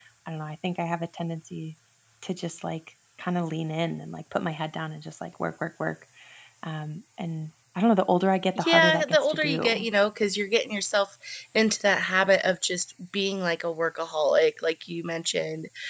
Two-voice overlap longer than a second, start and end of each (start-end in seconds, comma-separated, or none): 8.6-9.9